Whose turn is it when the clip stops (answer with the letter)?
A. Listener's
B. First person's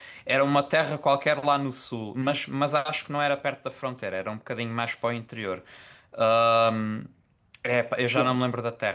B